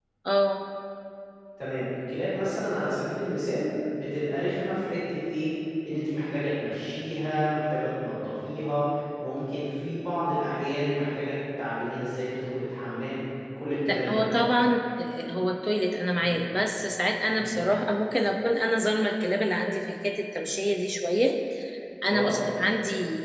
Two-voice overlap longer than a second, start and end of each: none

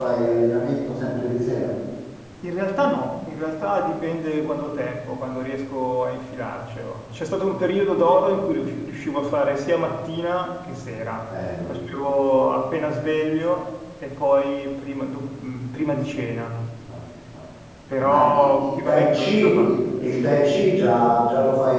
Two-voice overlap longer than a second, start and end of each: 18.0-19.7

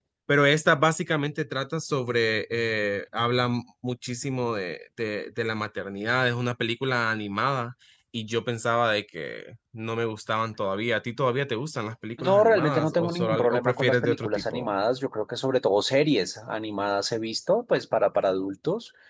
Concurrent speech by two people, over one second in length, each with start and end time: 12.2-14.7

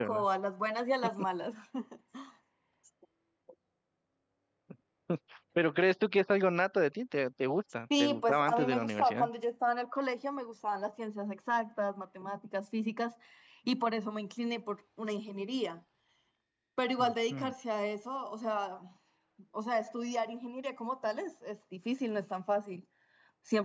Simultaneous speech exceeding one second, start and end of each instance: 8.0-9.3

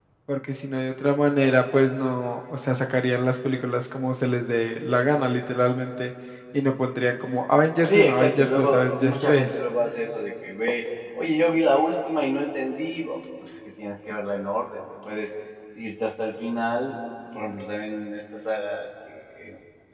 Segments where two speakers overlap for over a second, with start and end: 7.8-9.5

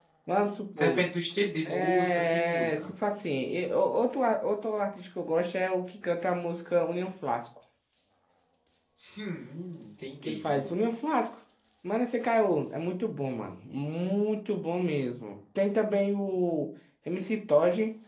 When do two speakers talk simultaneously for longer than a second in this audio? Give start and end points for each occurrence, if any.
1.6-2.9

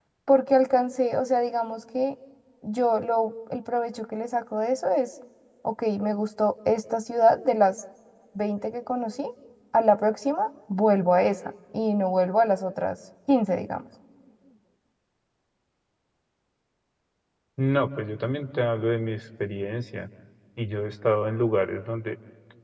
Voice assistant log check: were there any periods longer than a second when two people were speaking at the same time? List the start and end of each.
none

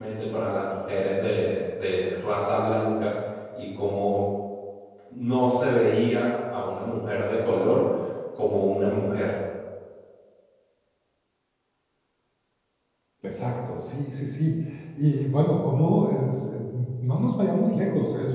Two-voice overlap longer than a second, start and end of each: none

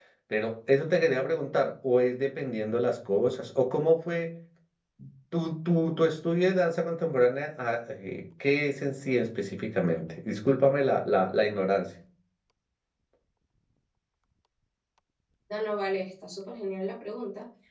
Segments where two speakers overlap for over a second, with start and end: none

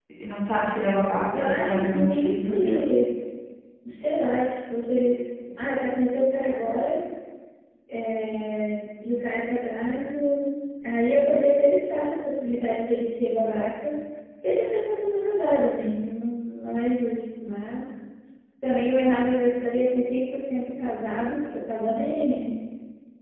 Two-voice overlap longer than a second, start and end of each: 1.3-3.0

